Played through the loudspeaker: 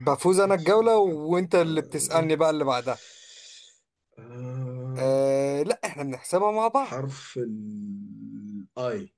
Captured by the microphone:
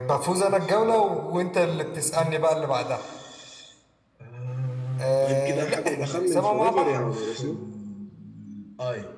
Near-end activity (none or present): present